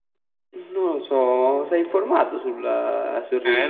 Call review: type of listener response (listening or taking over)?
taking over